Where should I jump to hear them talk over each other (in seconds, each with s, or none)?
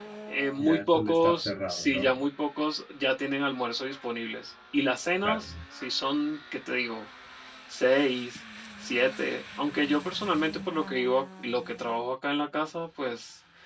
0.6 s